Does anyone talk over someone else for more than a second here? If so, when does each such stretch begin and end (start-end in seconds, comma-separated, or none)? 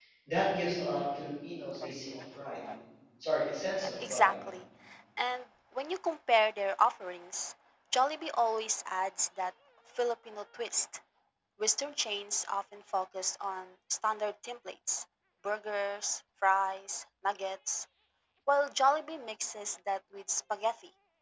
none